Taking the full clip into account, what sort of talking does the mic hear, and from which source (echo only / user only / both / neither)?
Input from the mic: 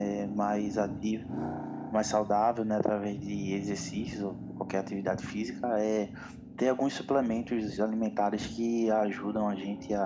echo only